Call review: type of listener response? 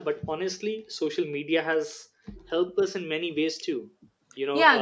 taking over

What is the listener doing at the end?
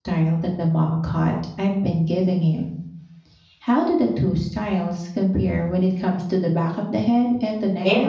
taking over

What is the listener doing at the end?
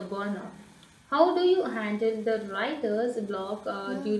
taking over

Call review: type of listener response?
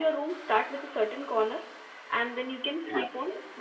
listening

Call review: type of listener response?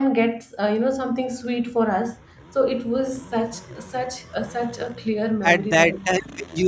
taking over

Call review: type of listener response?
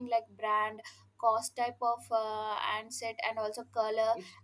listening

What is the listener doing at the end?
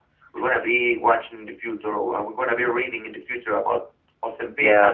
listening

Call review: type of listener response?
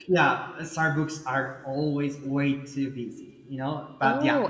taking over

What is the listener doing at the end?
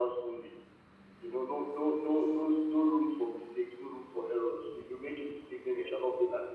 listening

